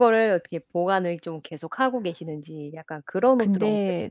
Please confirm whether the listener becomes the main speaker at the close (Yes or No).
Yes